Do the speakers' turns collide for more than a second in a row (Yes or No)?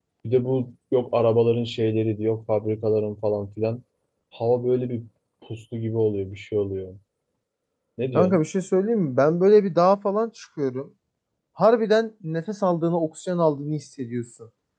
No